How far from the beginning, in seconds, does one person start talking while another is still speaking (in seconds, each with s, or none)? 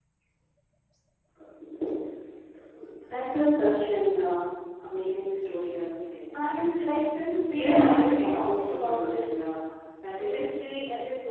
7.5 s